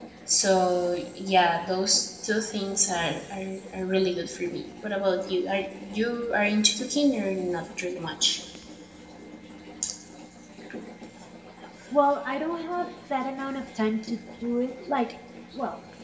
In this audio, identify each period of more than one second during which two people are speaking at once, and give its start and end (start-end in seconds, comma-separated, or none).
none